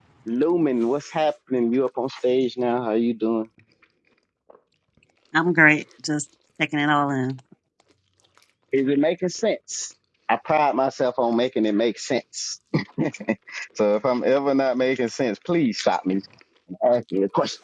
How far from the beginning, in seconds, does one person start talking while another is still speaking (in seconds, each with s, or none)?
none